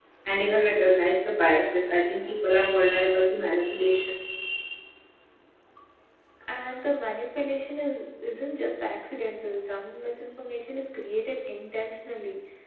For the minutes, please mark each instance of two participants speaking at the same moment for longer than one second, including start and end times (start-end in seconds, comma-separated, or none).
none